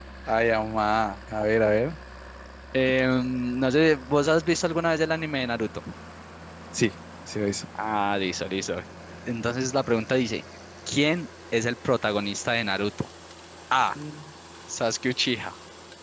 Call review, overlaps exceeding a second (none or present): none